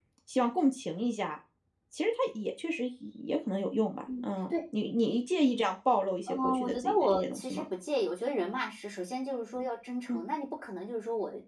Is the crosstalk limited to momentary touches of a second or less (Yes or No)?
No